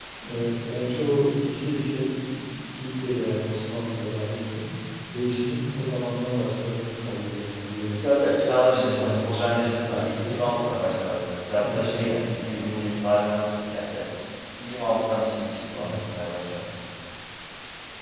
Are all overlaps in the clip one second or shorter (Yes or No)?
No